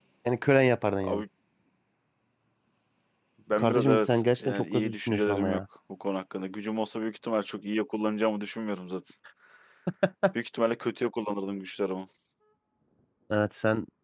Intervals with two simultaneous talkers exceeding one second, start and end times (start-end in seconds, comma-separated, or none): 3.6-5.6